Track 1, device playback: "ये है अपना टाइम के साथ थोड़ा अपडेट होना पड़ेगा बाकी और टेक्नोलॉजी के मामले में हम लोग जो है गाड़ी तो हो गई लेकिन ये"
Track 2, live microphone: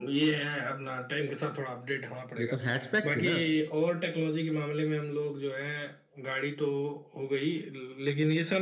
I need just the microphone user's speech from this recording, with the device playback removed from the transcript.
ये तो हैचबैक थी ना

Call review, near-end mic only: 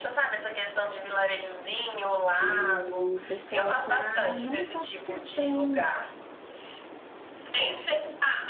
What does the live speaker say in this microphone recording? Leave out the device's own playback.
E o pessoal tá não só por questão

